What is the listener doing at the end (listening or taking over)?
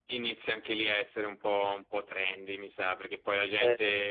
listening